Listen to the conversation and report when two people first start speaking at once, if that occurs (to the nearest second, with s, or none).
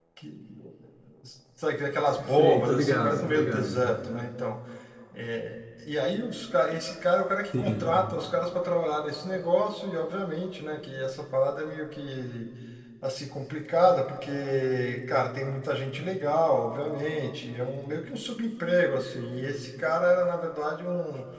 2 s